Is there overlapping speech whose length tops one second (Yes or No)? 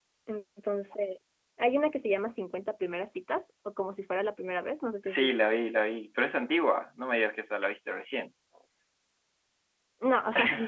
No